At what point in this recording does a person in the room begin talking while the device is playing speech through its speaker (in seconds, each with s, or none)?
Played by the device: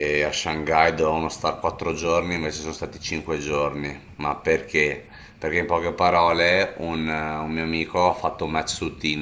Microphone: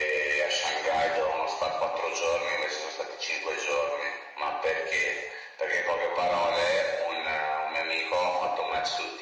none